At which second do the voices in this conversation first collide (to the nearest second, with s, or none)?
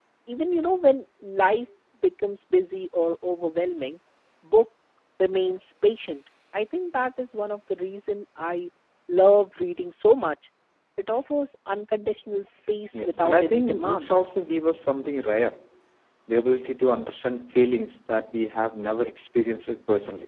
13 s